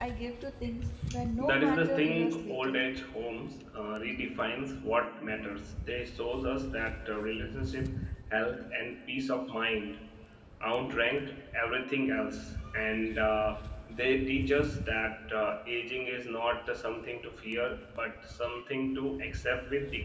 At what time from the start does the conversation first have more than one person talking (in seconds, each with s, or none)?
1.4 s